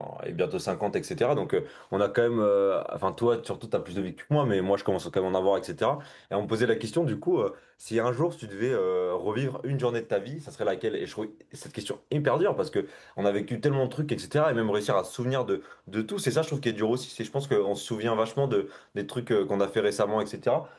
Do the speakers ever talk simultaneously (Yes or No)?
No